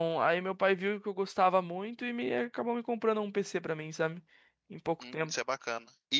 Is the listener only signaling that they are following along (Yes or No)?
No